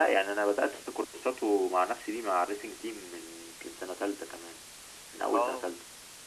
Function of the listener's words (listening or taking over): taking over